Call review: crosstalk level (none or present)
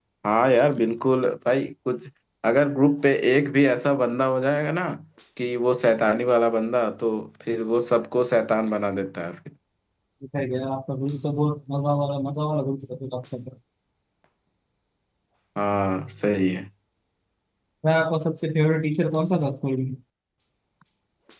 none